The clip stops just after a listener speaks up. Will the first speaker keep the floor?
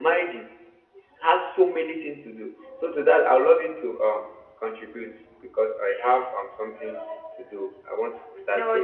No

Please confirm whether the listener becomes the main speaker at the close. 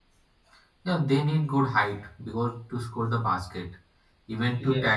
No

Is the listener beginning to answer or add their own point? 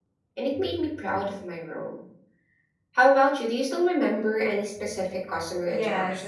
Yes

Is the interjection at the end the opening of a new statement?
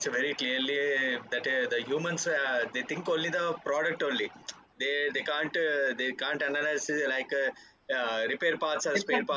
Yes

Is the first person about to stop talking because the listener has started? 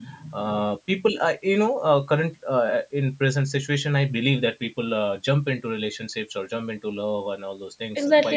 Yes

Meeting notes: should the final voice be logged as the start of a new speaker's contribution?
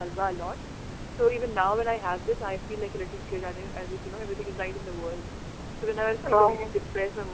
No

